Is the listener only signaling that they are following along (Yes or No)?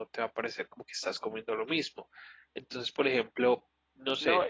No